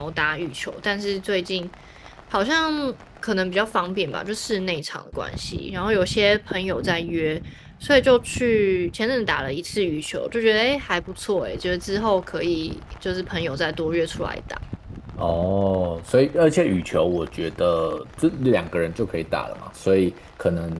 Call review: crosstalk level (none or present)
none